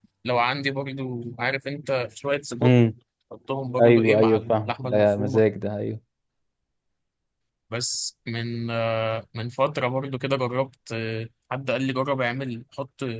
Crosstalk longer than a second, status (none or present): present